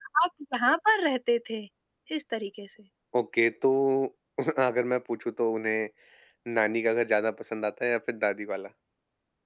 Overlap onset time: none

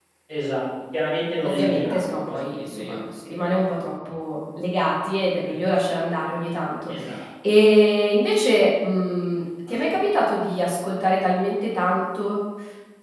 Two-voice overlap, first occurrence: 1.5 s

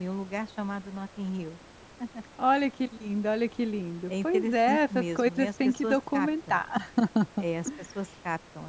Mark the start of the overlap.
4.1 s

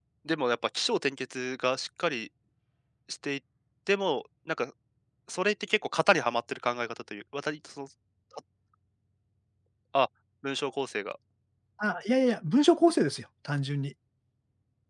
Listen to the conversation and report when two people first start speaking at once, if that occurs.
none

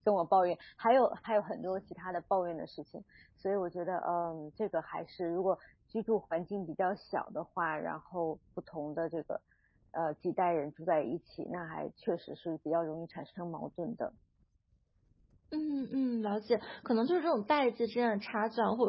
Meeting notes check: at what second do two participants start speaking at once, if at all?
none

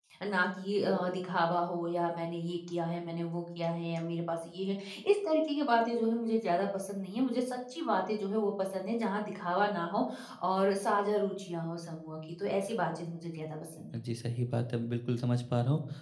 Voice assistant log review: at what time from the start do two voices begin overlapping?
none

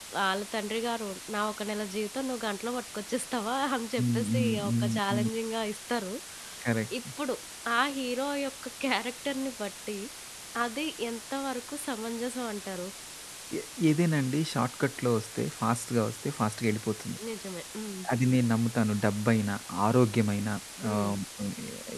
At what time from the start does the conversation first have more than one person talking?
4.0 s

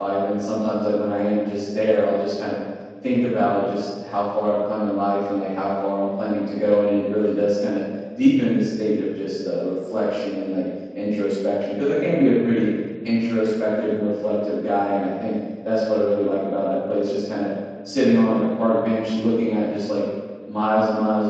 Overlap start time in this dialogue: none

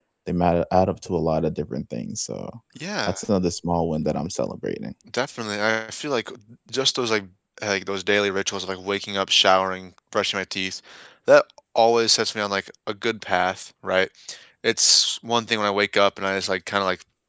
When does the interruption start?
none

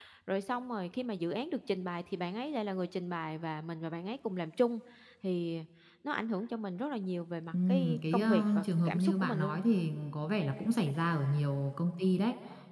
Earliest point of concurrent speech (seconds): 7.5 s

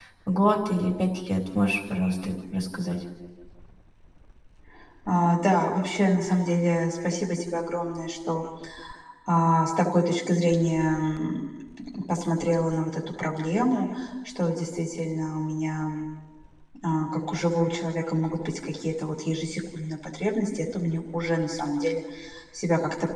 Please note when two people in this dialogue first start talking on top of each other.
none

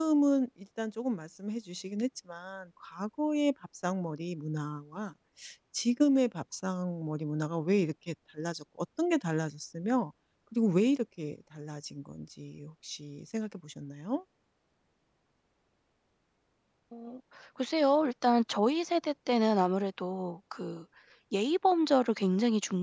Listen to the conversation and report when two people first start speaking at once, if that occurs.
none

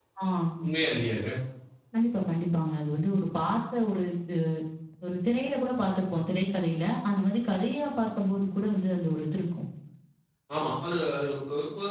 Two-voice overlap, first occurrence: none

